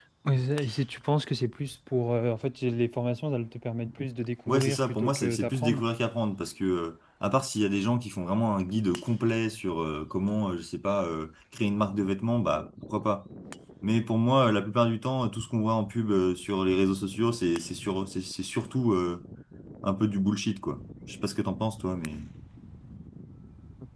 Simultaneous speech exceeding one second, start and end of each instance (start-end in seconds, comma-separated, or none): 4.5-5.8